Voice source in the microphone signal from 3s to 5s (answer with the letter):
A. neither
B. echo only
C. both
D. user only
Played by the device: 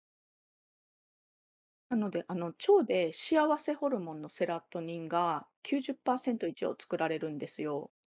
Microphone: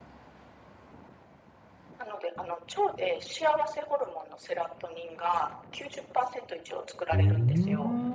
B